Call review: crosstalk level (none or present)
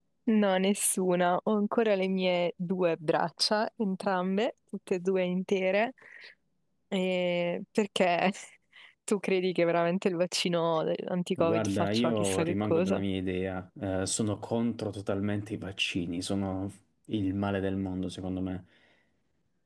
present